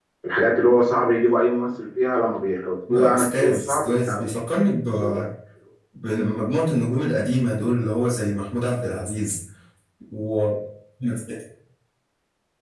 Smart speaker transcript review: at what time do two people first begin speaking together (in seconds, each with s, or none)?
2.9 s